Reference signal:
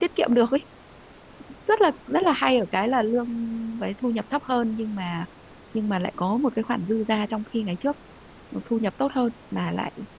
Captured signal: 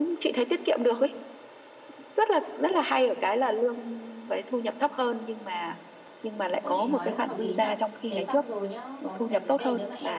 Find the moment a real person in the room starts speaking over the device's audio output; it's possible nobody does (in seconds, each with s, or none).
6.6 s